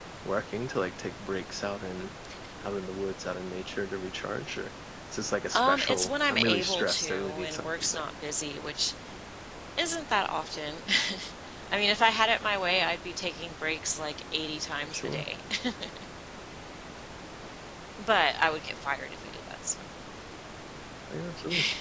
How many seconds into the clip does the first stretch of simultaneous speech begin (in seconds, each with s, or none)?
5.5 s